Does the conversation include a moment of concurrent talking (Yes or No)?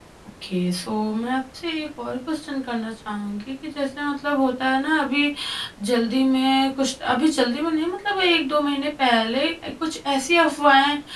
No